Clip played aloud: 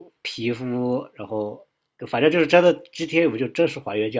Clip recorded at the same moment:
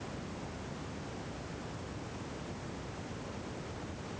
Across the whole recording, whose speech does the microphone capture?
neither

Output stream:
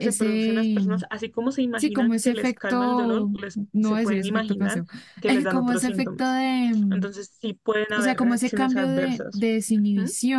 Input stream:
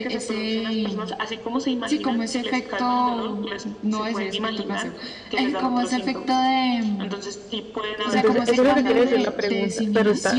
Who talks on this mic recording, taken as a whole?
both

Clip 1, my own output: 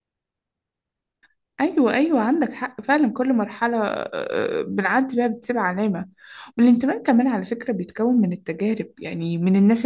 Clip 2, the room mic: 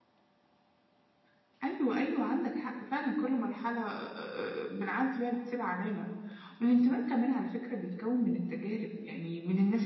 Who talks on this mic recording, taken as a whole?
echo only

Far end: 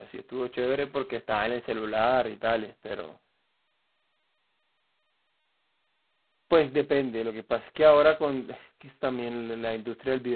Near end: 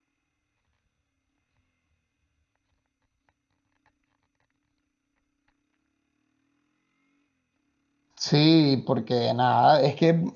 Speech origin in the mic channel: user only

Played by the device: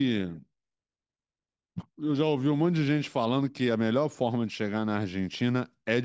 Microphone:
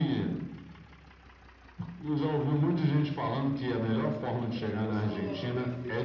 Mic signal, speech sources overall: both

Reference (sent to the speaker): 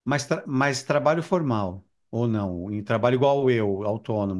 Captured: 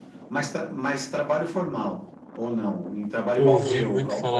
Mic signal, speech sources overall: both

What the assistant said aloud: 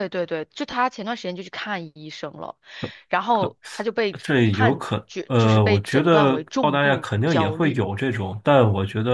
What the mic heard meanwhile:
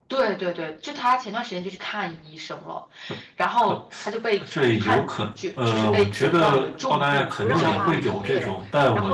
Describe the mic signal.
both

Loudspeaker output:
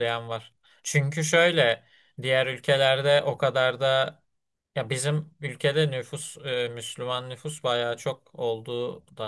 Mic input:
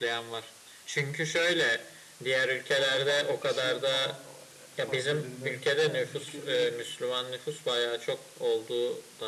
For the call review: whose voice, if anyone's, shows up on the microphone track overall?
both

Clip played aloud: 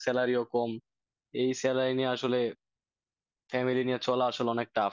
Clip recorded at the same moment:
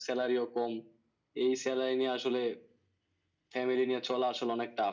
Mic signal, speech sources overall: echo only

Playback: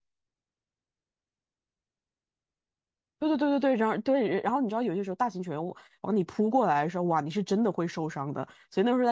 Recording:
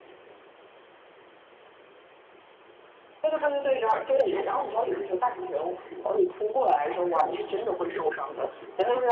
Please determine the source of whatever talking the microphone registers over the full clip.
echo only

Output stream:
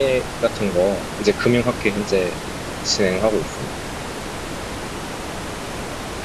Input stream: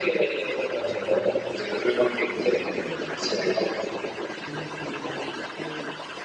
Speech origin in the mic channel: both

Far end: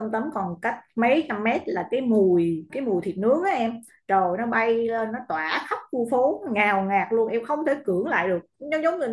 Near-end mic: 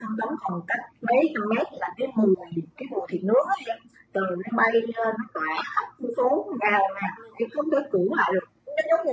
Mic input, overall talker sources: echo only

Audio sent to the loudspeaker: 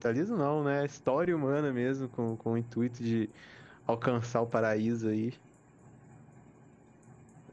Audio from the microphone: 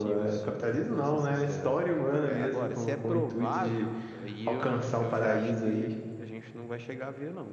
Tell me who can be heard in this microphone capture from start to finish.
both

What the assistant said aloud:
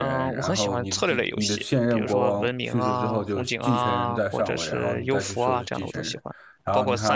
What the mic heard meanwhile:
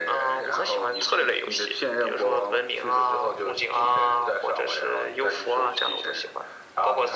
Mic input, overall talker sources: echo only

